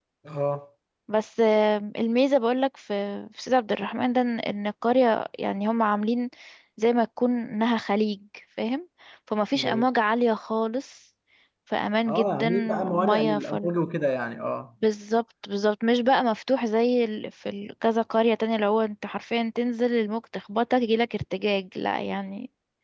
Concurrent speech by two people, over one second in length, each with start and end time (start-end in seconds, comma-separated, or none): 12.1-13.7